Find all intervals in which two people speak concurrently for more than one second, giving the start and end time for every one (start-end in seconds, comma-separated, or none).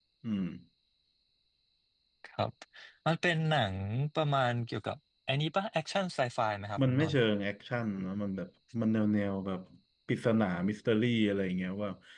none